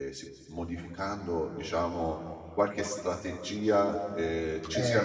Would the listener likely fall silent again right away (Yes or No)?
Yes